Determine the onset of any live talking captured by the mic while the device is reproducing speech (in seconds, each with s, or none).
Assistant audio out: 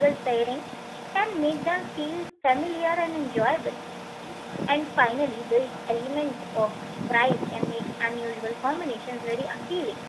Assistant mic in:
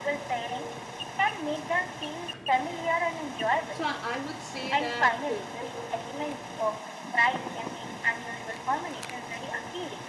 3.7 s